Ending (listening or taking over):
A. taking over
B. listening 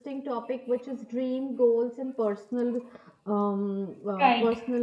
B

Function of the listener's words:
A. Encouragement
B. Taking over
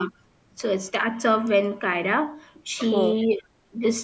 A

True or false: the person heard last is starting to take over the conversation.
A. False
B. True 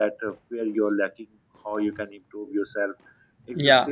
A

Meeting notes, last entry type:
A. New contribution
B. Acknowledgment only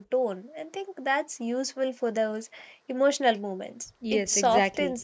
A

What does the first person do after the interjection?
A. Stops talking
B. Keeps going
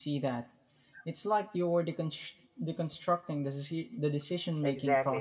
A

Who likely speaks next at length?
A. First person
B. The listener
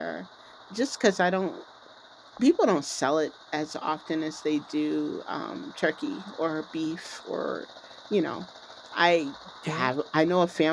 A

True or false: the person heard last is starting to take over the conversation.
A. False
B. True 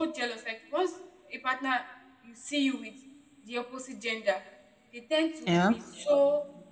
A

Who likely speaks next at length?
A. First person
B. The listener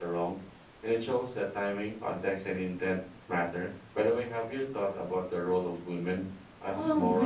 B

